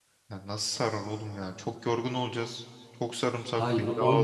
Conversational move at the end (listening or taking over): taking over